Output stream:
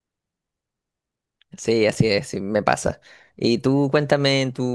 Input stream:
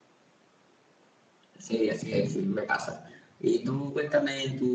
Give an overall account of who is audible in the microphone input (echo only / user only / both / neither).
echo only